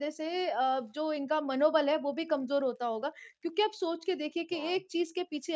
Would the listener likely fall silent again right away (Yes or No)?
Yes